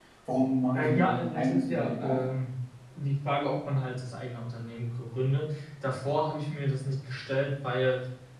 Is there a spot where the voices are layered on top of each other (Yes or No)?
Yes